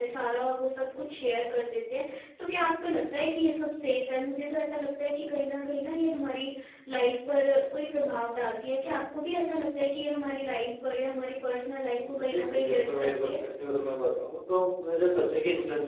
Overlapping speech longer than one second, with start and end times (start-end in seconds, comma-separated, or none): 11.9-13.3